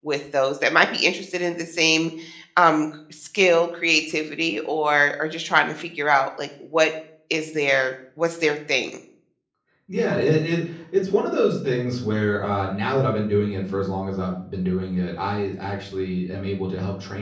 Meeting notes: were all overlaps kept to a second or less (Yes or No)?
Yes